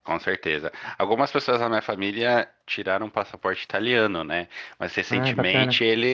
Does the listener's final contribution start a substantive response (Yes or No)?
No